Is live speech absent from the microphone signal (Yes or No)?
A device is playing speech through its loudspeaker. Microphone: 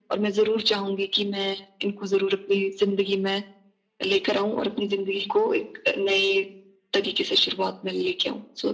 Yes